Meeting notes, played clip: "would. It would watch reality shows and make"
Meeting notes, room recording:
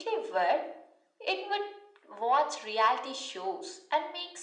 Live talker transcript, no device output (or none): none